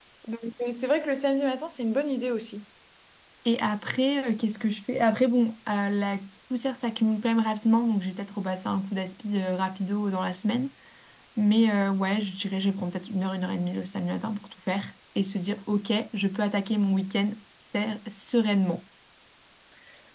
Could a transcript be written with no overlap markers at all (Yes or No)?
Yes